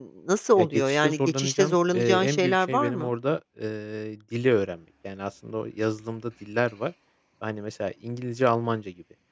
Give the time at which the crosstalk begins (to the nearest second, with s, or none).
1 s